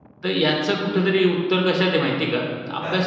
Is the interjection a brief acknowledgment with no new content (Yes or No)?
Yes